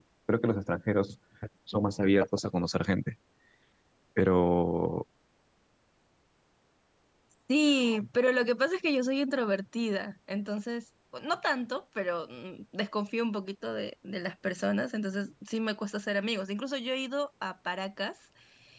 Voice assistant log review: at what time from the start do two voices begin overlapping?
none

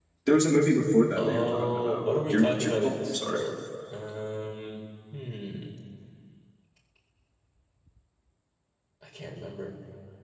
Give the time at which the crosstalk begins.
1.2 s

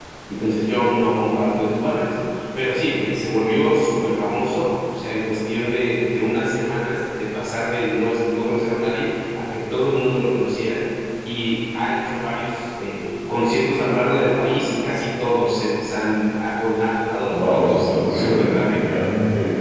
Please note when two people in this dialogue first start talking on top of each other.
17.3 s

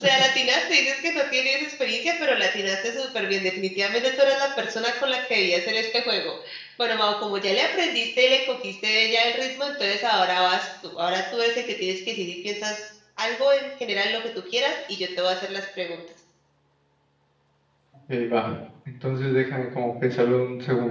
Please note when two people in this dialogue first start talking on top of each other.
none

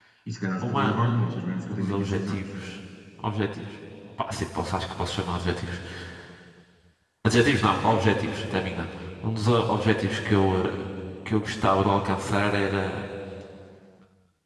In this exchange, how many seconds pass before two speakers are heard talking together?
0.6 s

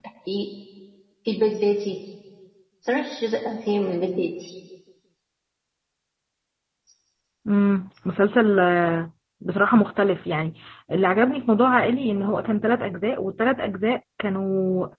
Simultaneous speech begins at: none

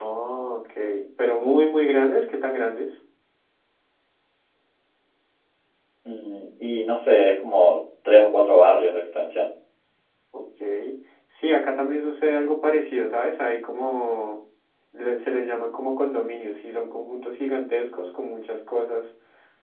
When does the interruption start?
none

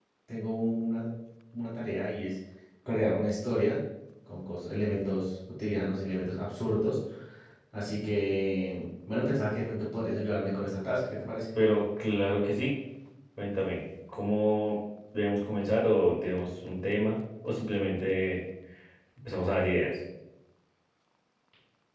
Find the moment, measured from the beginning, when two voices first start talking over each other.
none

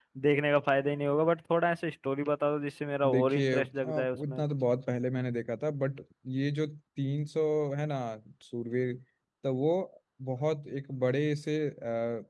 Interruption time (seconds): 3.0 s

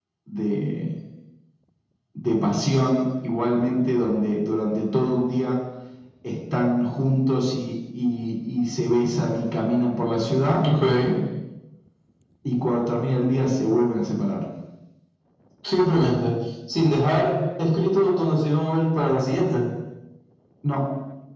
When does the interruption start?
none

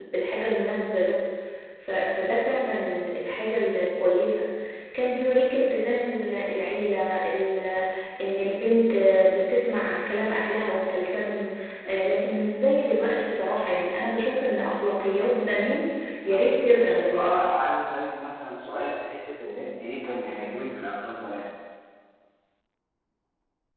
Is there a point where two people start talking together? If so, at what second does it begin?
16.3 s

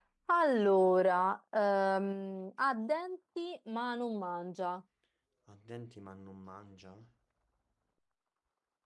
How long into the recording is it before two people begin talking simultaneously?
none

